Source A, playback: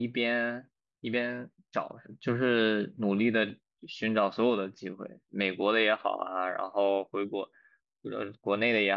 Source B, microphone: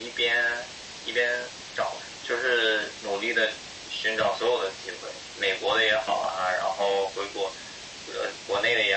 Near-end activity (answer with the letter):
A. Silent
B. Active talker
A